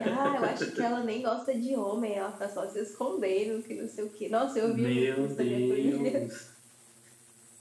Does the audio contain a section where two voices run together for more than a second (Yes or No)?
Yes